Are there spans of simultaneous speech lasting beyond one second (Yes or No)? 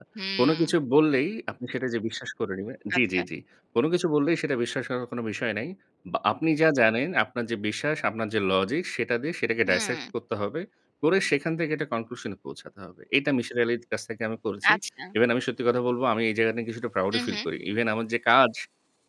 No